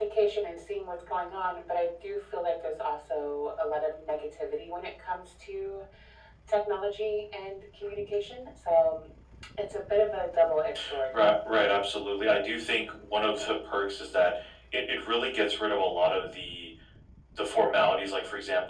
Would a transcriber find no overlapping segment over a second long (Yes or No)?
Yes